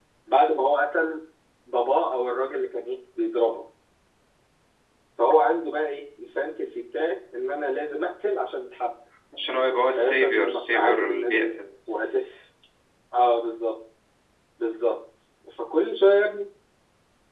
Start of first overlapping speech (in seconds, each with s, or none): 10.0 s